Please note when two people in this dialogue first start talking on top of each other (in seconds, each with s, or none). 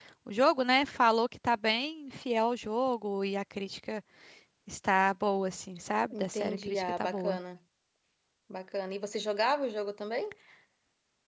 6.1 s